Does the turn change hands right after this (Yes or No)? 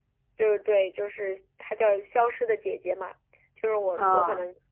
No